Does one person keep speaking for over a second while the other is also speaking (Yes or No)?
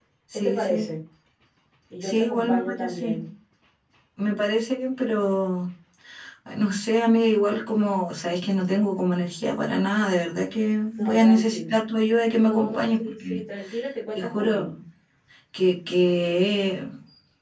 Yes